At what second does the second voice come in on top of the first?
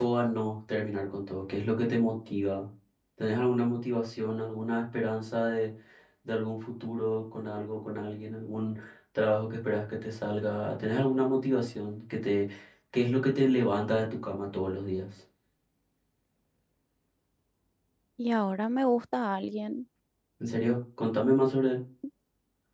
none

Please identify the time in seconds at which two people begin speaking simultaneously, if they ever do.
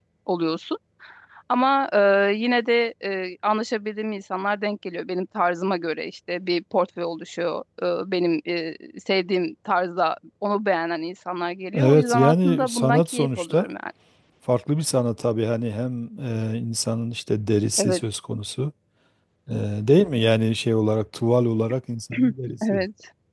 11.7 s

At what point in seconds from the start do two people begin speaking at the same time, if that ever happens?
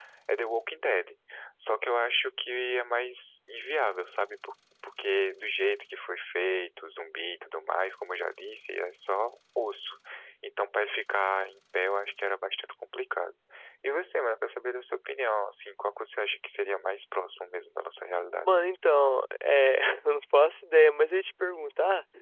none

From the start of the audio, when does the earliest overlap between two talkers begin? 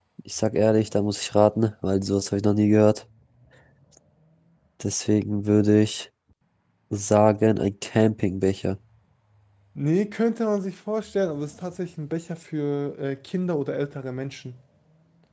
none

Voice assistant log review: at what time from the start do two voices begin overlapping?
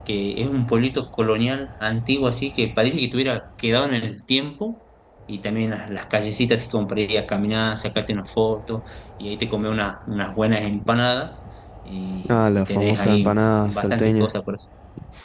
12.3 s

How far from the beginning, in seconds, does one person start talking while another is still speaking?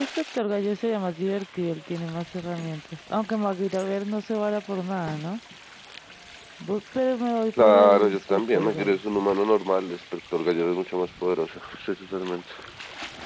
7.6 s

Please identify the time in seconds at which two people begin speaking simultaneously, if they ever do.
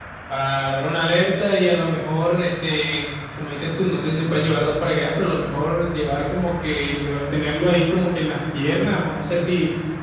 none

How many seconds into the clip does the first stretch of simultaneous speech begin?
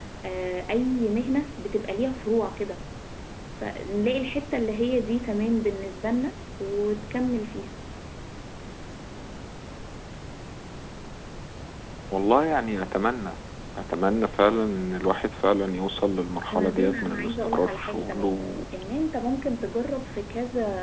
16.5 s

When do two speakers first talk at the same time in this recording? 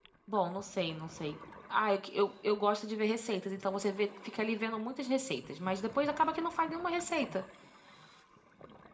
none

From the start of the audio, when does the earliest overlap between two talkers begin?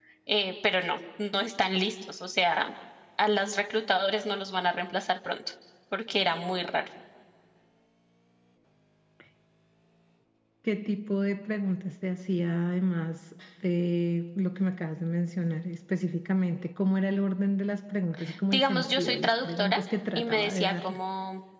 18.5 s

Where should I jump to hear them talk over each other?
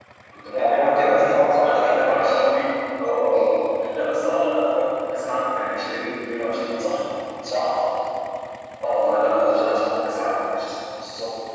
0.6 s

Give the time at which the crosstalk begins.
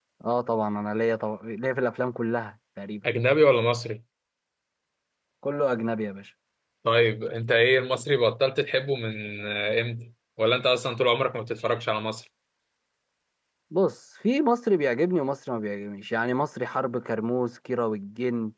none

